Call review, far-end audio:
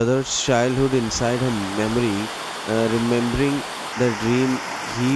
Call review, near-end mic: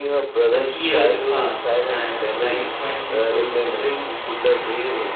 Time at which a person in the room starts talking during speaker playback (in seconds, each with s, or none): 0.5 s